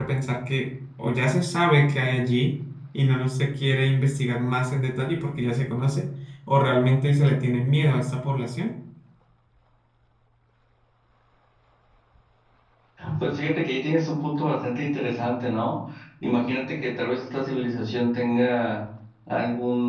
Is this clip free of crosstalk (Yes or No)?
Yes